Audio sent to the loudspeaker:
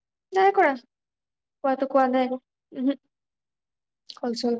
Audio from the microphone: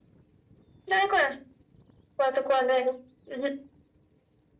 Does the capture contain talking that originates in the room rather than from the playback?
No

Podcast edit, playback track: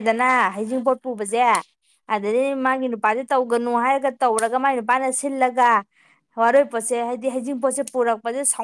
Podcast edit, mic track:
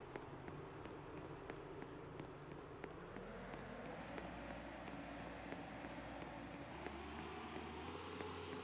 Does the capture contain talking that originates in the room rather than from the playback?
No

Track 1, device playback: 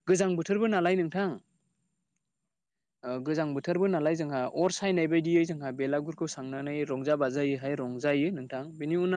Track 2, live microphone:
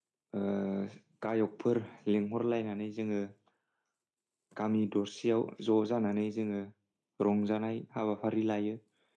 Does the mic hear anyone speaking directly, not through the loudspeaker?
Yes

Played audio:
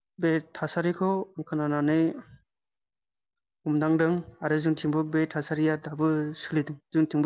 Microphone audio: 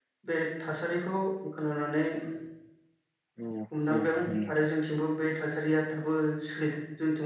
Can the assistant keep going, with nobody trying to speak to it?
No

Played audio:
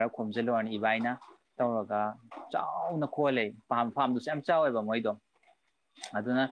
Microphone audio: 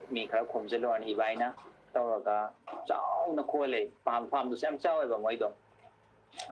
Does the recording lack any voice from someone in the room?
Yes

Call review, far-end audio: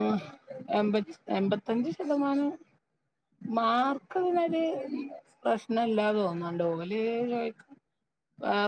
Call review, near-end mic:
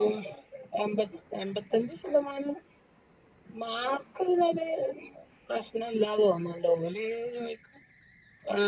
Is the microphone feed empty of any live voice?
Yes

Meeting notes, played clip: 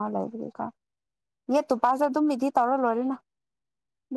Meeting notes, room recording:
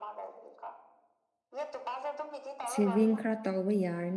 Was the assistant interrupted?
Yes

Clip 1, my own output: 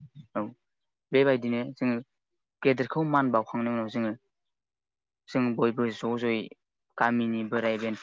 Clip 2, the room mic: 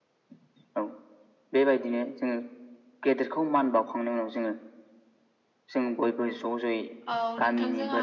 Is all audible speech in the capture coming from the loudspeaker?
No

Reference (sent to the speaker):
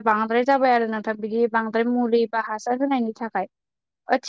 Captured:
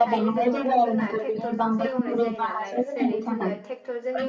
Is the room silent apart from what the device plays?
No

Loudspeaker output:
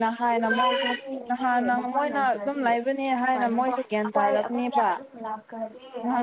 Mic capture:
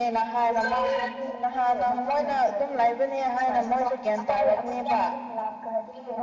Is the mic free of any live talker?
Yes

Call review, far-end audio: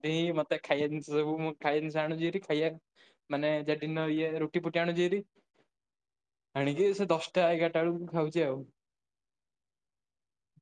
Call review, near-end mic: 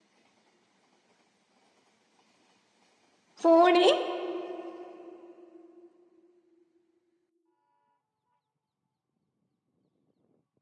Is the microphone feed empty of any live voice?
No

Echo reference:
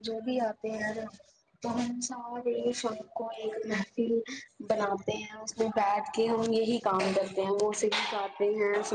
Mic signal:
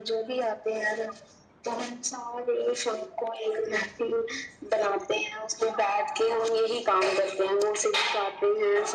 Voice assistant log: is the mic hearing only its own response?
Yes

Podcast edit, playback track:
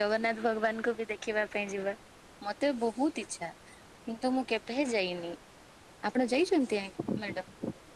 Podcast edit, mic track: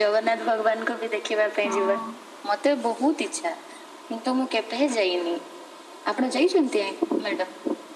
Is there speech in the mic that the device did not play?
Yes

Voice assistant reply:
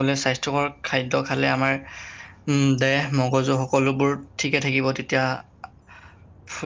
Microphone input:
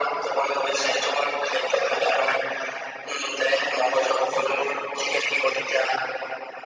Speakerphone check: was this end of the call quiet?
Yes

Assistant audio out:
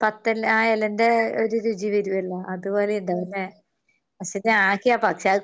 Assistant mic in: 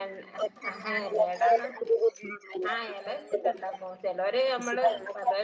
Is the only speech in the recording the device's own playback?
No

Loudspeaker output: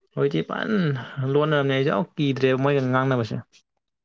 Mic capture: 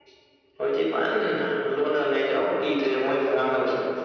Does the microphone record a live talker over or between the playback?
No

